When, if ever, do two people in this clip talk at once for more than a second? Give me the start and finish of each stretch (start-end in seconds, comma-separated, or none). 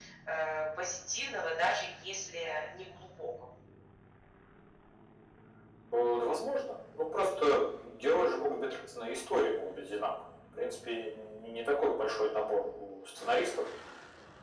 none